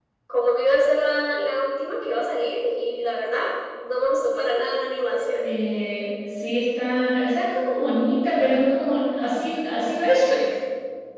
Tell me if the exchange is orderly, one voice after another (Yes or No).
Yes